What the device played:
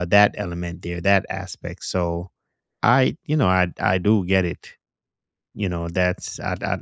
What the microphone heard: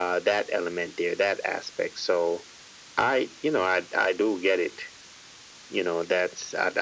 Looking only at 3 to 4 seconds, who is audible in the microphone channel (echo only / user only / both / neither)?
echo only